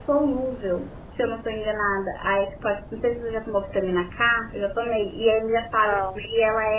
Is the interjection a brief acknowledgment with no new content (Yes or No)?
Yes